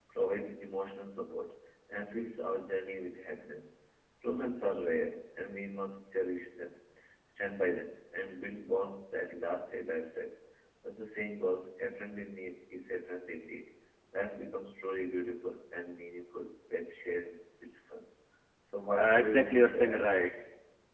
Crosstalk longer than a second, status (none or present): present